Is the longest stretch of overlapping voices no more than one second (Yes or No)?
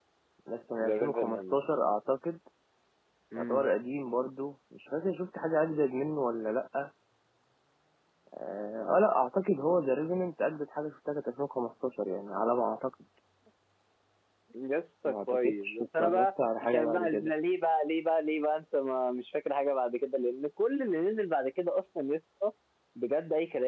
No